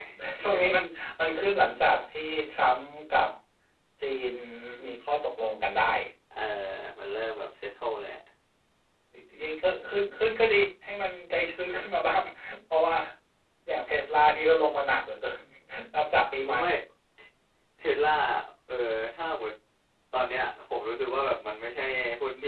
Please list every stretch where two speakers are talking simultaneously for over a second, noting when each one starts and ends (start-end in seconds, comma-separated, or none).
none